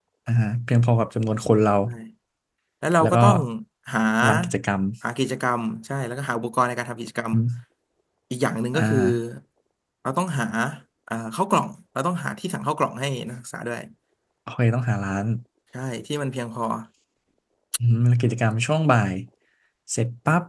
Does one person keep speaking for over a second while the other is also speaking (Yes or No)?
No